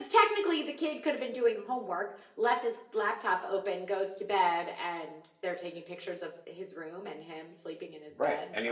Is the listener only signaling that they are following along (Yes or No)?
No